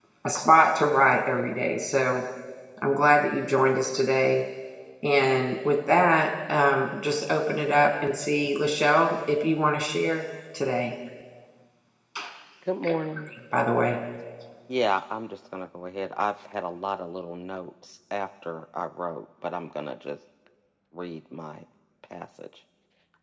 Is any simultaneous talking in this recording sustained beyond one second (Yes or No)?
No